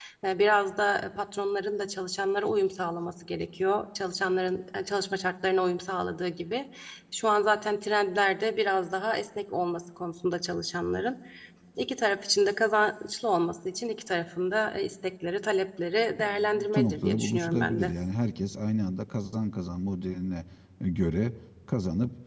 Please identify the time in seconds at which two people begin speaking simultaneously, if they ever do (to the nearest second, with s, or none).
16 s